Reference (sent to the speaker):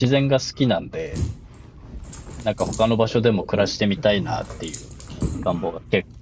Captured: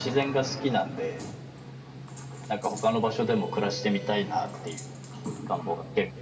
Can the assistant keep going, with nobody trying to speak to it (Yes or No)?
Yes